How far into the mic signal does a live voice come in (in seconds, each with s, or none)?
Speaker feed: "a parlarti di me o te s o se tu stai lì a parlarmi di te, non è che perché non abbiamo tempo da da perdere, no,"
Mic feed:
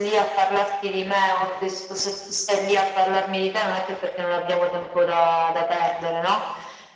none